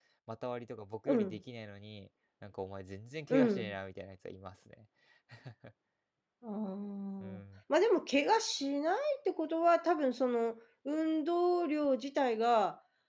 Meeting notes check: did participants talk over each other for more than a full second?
No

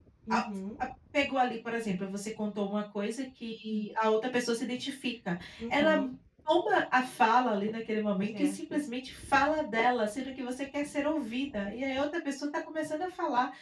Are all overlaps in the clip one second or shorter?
Yes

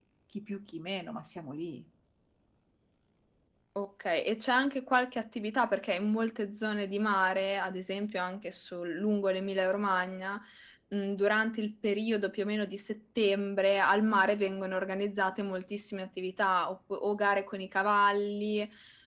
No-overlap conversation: Yes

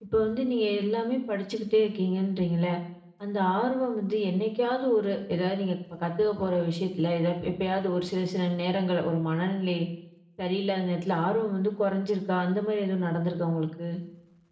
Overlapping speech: No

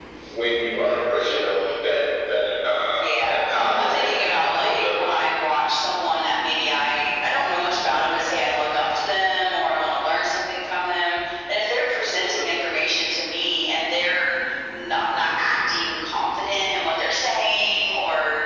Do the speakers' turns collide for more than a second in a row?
Yes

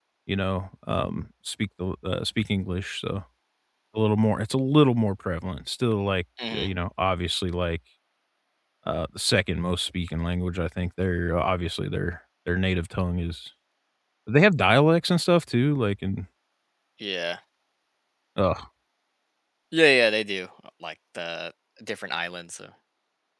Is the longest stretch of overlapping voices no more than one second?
Yes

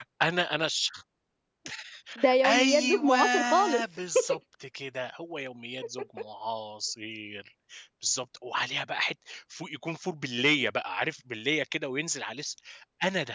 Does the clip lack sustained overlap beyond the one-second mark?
No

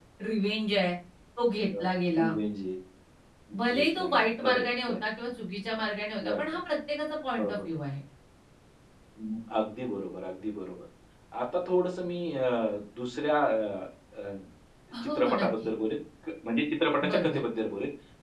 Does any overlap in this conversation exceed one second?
Yes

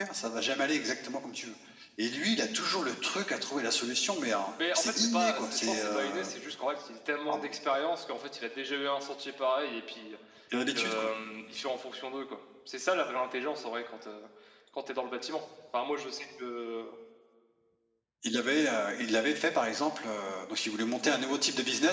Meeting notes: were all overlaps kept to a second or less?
No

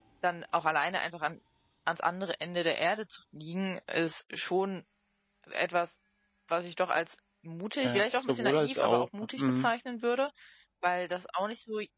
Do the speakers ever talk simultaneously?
Yes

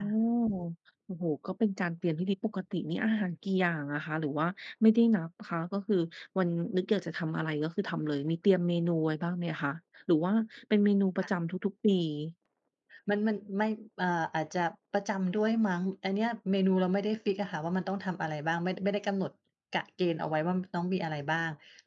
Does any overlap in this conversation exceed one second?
No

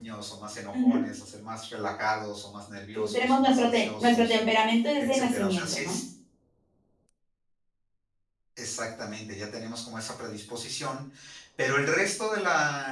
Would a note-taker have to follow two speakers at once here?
Yes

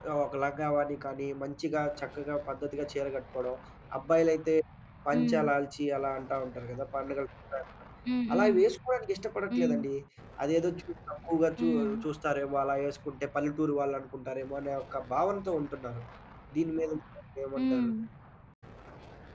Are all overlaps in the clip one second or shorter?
Yes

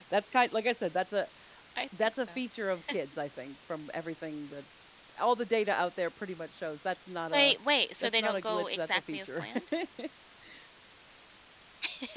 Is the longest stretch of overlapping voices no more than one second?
No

